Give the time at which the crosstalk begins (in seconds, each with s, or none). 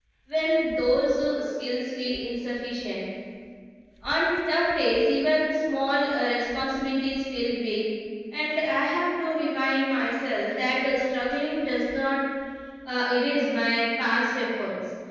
none